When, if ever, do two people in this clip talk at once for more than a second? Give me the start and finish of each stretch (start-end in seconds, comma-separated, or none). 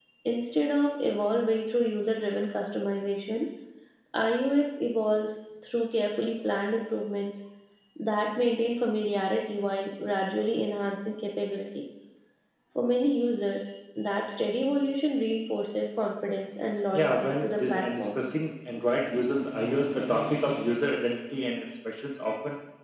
16.9-18.2